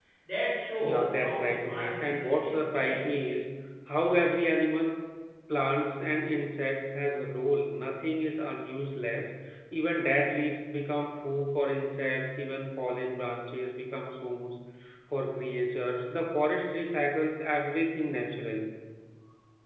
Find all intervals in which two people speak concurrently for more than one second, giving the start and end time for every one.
0.8-3.0

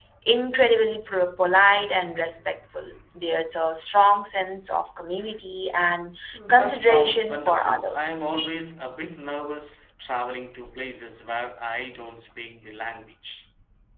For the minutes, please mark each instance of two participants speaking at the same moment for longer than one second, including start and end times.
6.3-8.3

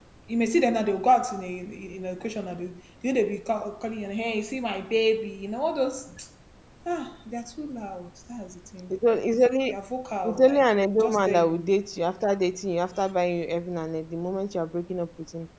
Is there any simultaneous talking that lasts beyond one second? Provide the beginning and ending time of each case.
10.2-11.7

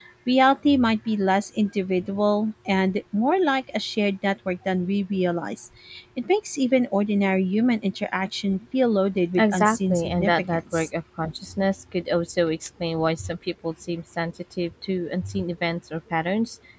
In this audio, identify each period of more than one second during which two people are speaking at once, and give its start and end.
9.4-10.9

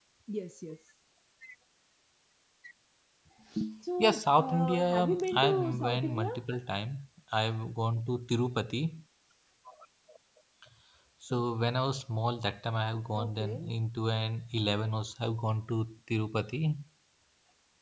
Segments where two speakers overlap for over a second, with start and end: 4.0-6.3

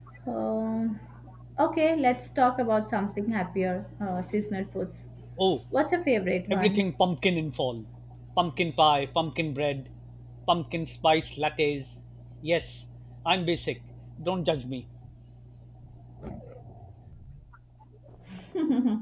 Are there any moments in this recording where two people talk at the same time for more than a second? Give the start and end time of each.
none

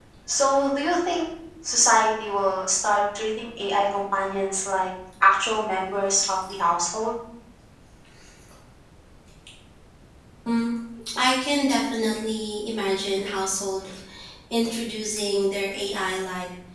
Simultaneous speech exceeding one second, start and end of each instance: none

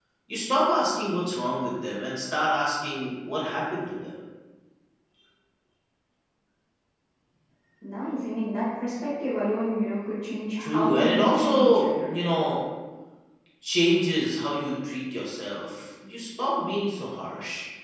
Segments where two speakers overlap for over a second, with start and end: 10.6-12.1

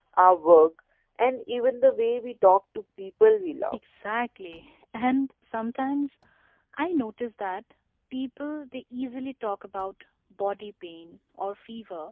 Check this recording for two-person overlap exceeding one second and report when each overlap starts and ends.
none

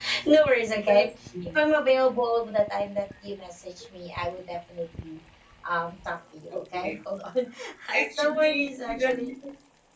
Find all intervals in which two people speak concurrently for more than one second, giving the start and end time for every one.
8.0-9.3

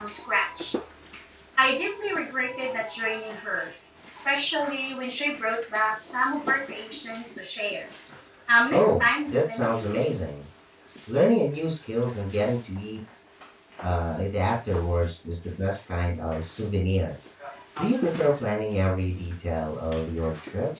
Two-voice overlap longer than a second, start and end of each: 8.7-9.9

